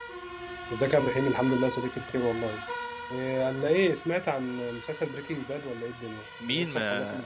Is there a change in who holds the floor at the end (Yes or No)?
Yes